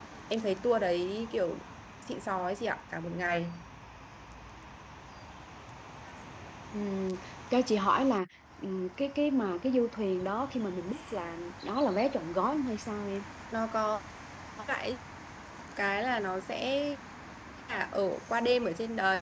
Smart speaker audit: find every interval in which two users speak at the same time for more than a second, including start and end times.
none

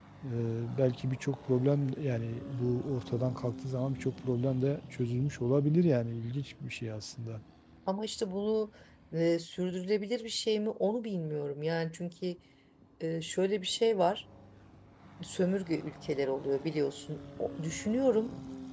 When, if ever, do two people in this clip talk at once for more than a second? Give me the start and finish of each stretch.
none

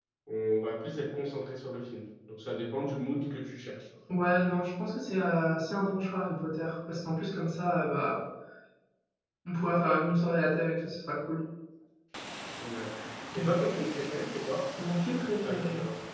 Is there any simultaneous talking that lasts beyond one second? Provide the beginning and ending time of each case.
none

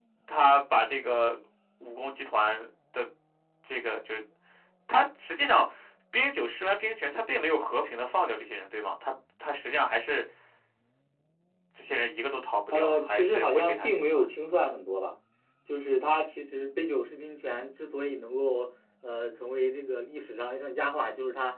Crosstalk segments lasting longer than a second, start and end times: 12.7-14.2

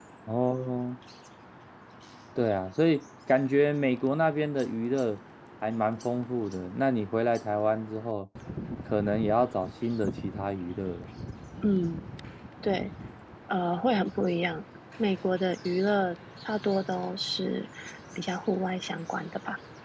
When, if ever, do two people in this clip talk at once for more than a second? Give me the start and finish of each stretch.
none

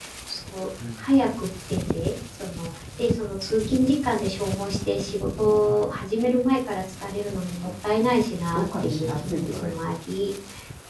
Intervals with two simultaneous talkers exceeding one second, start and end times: 8.5-9.8

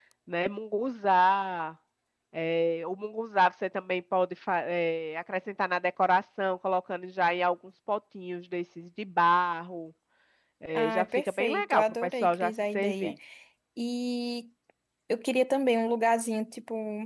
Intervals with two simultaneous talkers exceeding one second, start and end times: 10.8-13.1

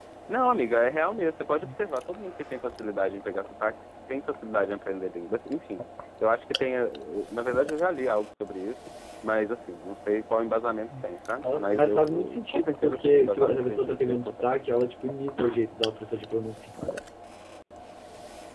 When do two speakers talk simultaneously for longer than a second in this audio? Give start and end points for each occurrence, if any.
11.4-14.5

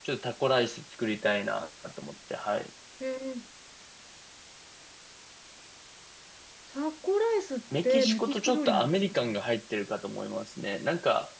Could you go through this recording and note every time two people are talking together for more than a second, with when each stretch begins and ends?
7.8-9.4

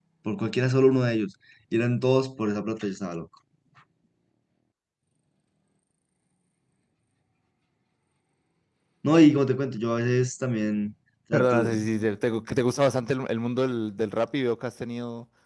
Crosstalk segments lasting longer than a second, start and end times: none

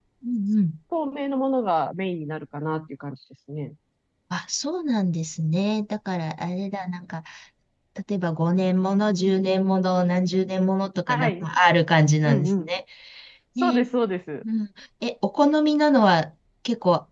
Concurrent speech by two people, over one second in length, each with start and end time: none

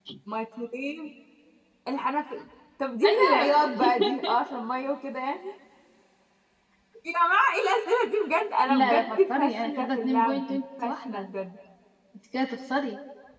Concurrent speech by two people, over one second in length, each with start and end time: 8.7-11.2

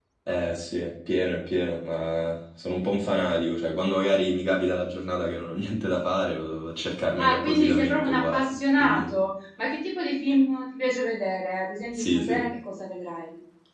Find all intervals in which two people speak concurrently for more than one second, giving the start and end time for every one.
7.2-9.0

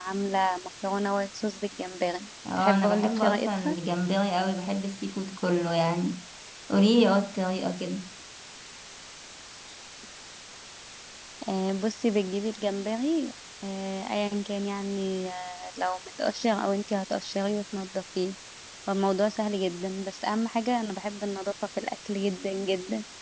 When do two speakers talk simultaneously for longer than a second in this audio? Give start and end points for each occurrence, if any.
2.6-3.8

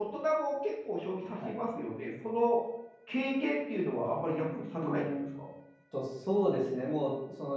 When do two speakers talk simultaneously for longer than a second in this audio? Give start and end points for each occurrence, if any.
none

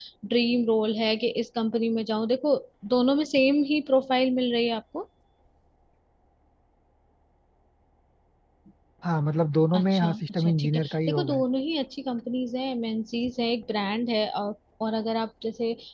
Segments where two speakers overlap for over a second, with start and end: 9.8-11.4

